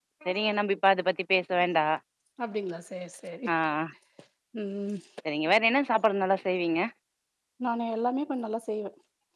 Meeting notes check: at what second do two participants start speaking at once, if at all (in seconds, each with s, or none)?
none